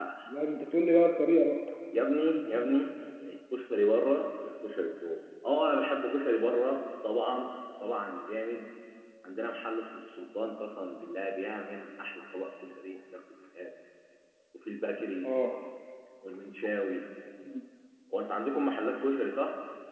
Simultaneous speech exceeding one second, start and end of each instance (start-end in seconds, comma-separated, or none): none